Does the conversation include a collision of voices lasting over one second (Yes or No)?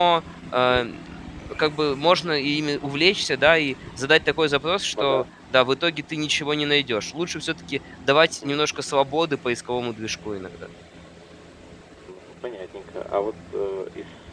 No